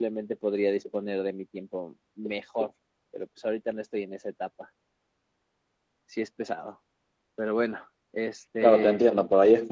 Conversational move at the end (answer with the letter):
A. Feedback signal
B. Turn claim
B